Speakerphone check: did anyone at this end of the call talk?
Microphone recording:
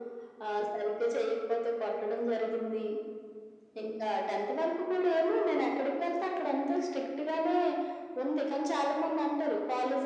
No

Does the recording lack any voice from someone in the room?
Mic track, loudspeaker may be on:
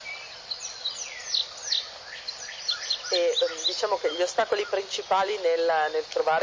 Yes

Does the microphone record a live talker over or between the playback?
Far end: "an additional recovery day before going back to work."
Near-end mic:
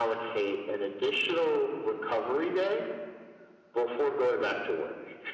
No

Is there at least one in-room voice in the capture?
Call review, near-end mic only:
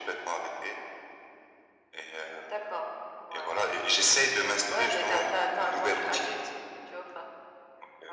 No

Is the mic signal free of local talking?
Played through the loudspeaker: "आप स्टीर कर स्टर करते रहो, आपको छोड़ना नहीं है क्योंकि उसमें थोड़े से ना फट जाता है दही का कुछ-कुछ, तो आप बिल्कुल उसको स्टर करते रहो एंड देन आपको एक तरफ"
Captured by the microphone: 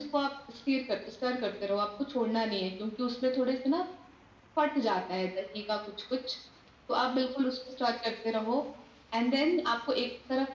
Yes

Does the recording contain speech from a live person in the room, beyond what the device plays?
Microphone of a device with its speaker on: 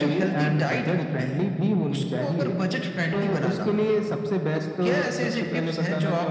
No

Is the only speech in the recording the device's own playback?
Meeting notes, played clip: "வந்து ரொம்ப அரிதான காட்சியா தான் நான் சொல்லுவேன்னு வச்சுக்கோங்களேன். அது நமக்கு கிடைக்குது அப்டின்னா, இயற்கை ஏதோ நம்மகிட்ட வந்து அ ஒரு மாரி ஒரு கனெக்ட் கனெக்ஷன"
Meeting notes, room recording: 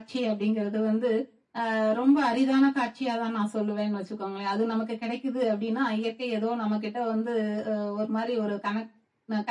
Yes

